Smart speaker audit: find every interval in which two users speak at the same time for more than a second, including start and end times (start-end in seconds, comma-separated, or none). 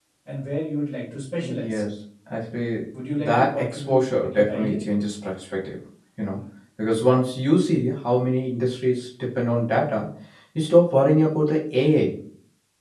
3.2-4.8